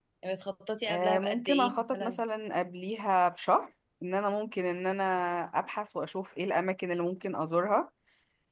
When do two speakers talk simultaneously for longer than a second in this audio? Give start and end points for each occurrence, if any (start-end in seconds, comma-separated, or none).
0.9-2.2